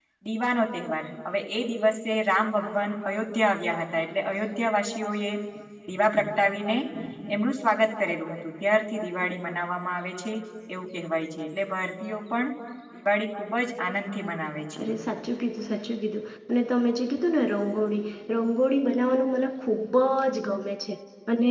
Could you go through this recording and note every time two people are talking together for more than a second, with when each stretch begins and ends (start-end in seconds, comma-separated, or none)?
none